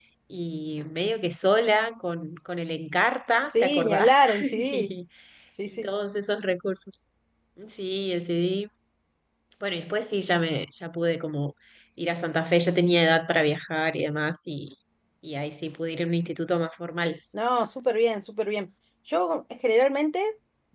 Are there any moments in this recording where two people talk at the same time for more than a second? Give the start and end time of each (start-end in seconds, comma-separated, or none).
3.5-4.9